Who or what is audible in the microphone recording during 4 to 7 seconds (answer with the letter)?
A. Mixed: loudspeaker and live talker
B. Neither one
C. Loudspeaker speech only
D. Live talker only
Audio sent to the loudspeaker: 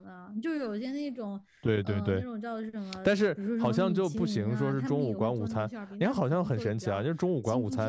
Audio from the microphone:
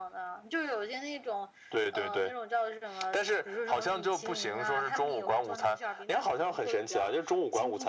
C